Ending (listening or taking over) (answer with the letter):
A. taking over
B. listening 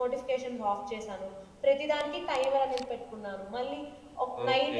A